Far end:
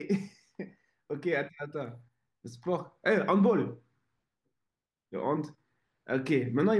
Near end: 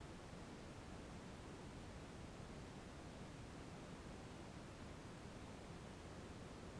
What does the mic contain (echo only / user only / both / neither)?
neither